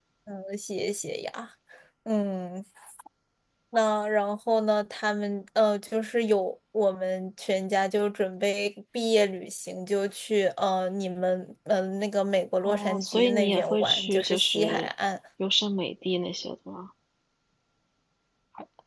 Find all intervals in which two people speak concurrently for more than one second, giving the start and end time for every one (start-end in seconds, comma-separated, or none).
12.6-14.9